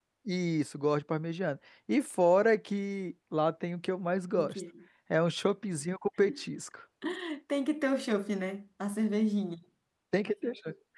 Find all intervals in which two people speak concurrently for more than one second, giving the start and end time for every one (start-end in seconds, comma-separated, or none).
none